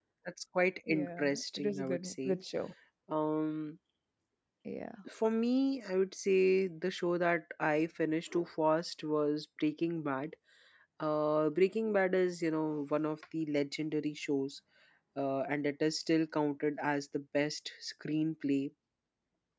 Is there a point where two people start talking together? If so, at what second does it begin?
1 s

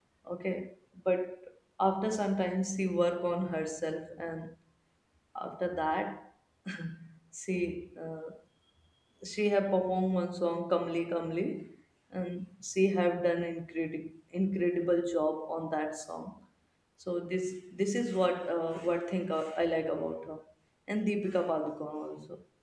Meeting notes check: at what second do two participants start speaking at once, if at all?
none

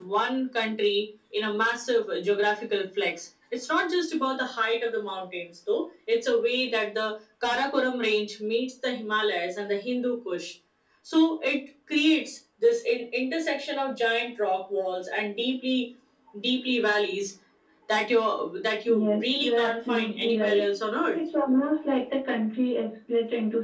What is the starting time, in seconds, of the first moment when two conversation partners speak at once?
19 s

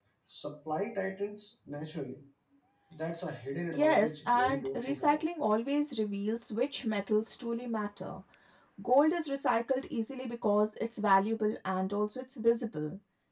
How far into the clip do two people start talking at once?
4 s

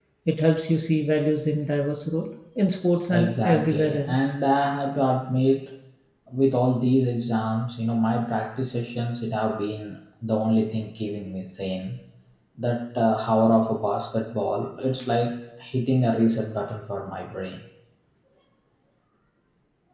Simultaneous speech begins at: 3 s

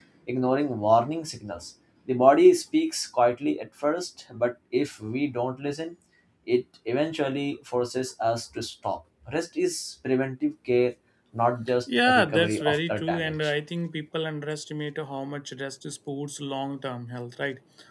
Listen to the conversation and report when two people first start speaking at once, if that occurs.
12 s

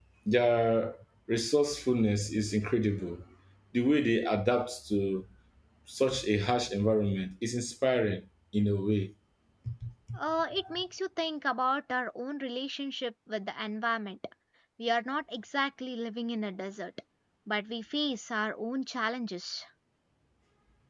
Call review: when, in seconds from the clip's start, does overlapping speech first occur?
none

